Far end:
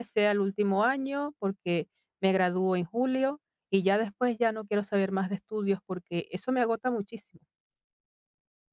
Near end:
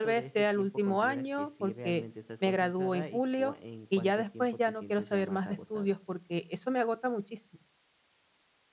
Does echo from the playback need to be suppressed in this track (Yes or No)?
Yes